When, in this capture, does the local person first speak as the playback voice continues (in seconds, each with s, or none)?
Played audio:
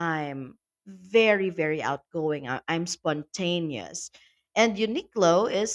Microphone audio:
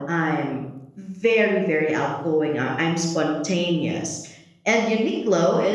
none